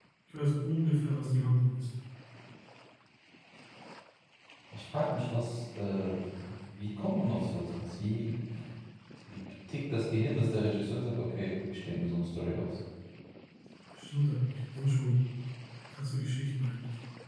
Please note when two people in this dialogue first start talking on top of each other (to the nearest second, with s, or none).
none